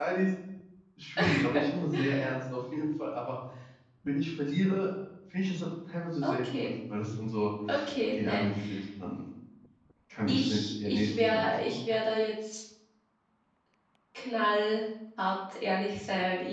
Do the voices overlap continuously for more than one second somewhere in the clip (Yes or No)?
Yes